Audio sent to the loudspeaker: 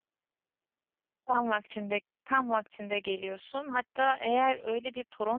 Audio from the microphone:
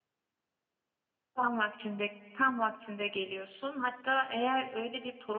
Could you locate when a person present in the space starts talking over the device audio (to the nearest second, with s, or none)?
none